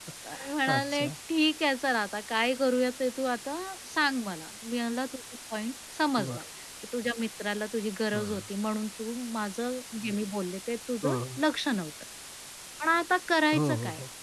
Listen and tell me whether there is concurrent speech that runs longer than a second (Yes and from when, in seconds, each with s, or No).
No